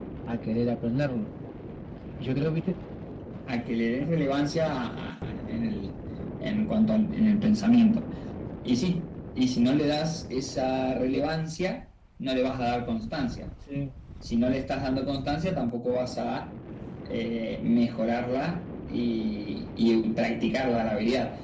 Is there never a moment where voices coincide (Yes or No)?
Yes